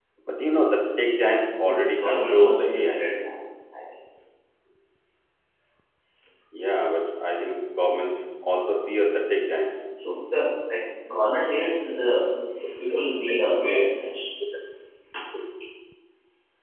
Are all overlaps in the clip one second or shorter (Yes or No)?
No